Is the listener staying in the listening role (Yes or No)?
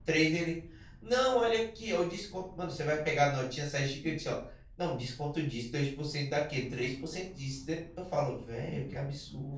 No